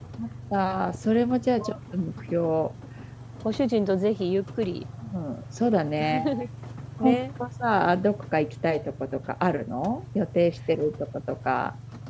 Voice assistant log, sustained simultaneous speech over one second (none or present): none